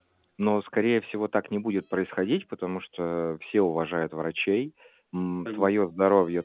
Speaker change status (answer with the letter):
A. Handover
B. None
B